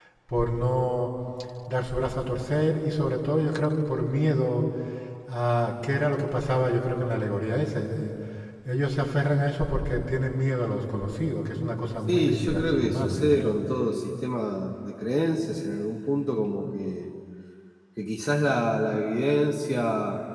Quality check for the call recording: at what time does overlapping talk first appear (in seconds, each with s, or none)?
12.1 s